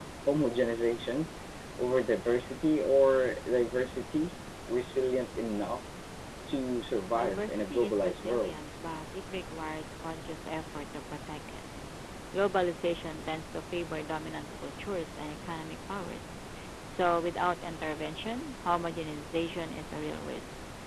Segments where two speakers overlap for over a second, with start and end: 7.2-8.5

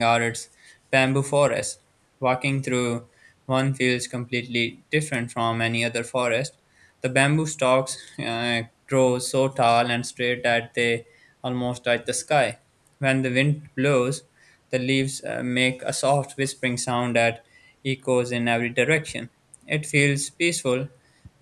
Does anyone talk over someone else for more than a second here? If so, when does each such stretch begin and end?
none

